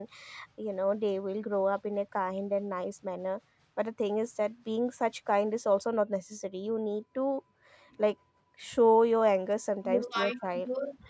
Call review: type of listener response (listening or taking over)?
taking over